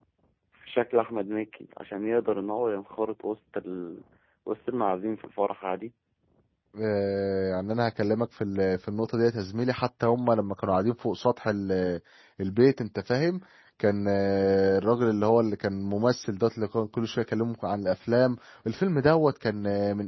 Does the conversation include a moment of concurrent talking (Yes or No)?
No